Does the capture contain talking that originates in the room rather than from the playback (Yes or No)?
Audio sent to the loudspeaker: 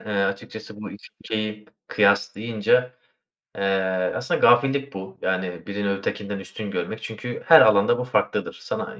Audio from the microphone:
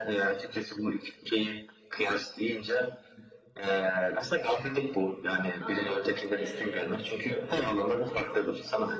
Yes